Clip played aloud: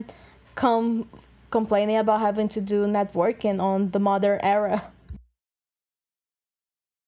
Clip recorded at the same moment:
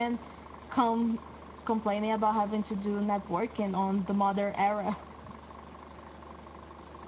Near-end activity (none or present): none